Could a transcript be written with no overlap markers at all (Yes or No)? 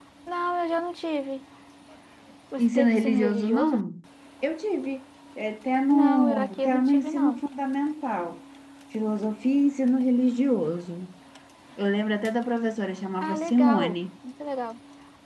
No